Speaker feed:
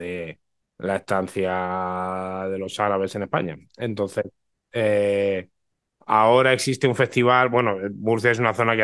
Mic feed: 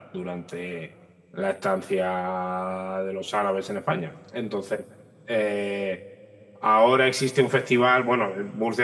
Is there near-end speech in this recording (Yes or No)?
No